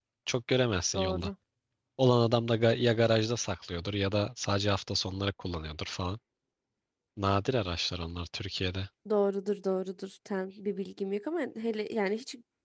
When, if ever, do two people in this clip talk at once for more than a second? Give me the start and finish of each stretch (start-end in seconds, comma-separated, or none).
none